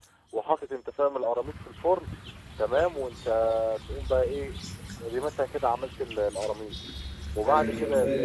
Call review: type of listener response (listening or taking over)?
taking over